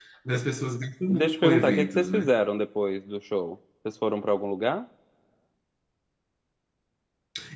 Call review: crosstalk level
present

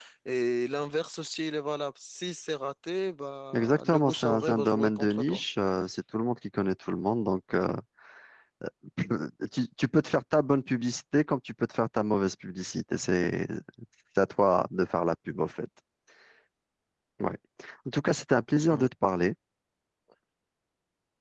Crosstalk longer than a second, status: present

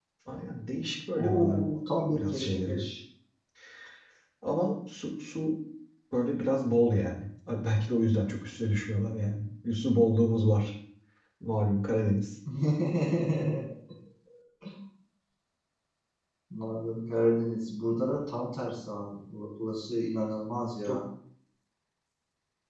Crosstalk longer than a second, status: present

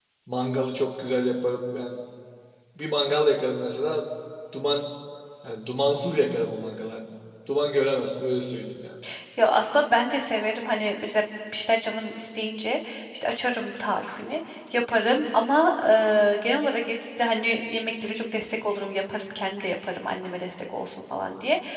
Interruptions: none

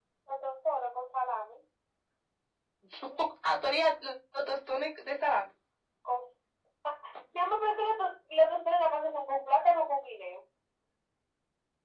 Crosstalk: none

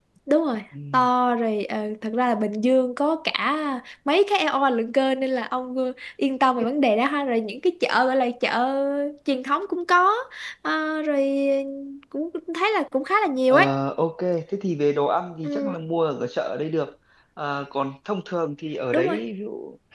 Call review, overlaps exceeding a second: none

